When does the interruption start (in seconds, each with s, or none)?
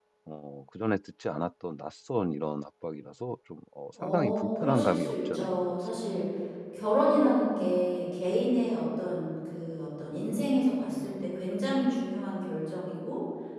4.0 s